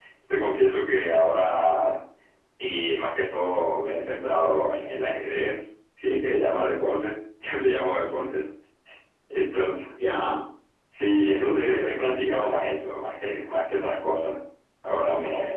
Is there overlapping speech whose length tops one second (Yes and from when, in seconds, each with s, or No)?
Yes, from 11.1 s